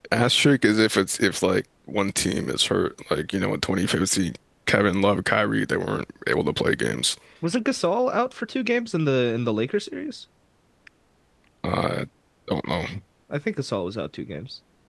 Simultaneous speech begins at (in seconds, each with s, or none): none